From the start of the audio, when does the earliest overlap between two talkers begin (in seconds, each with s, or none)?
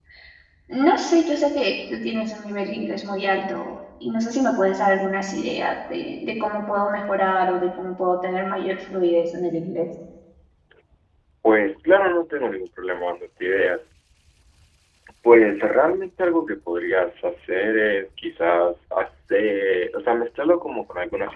none